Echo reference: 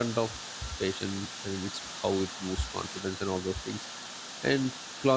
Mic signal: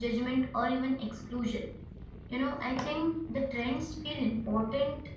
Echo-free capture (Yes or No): Yes